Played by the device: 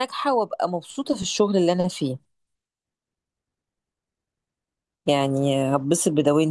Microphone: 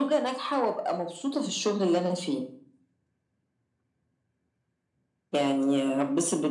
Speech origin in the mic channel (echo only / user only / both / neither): echo only